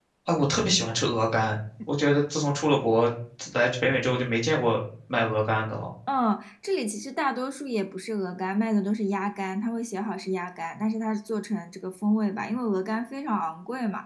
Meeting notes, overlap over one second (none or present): none